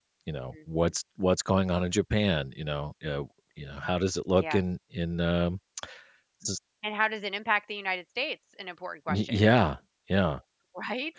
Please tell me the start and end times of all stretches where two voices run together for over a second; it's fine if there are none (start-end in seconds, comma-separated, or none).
none